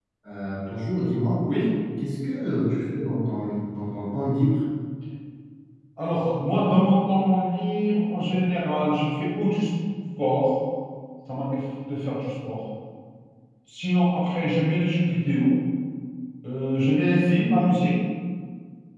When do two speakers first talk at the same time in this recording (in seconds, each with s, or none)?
none